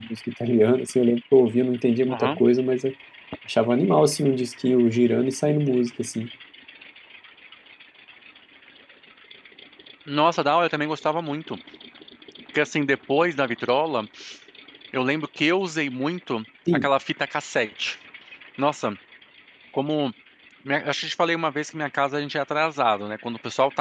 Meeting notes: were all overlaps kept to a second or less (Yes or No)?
Yes